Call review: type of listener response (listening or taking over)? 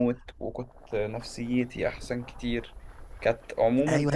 taking over